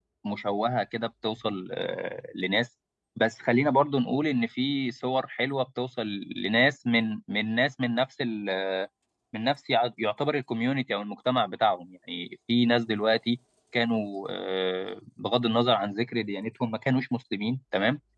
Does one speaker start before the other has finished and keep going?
No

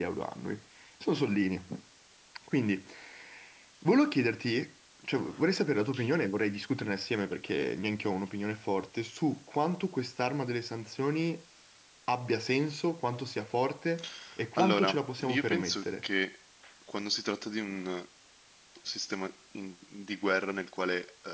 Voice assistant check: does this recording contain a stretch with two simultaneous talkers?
Yes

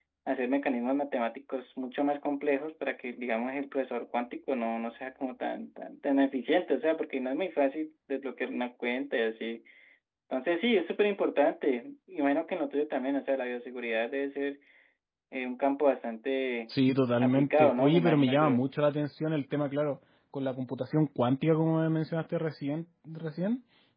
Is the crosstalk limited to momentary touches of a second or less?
No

